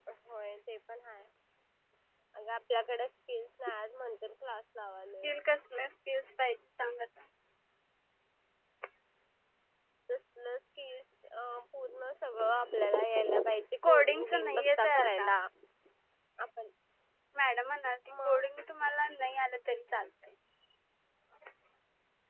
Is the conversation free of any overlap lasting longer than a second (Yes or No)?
No